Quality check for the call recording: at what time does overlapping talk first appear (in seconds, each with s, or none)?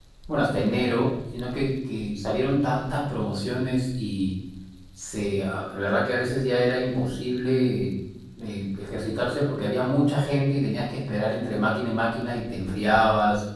none